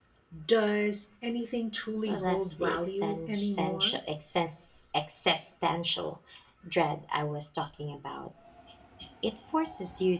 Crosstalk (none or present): present